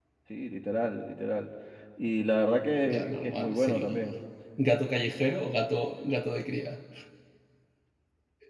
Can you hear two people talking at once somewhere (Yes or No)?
Yes